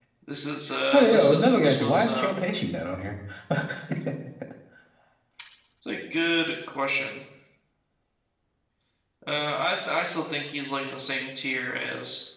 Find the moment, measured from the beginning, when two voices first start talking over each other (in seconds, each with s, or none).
0.9 s